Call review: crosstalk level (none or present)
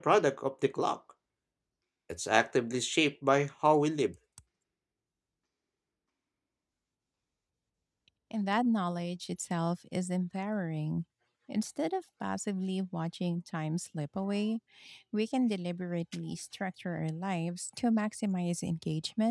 none